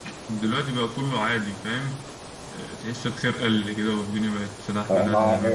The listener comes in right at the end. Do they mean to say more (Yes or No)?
Yes